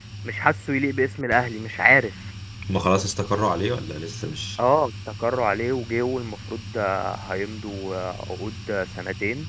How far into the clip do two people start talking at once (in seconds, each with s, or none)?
none